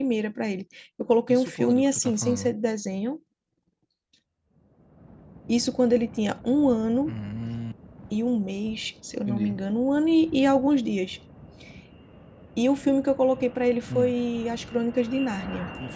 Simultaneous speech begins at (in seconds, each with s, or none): 1.3 s